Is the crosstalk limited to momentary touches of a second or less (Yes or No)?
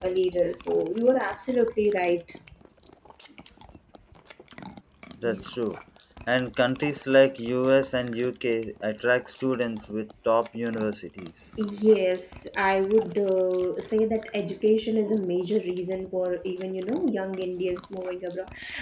Yes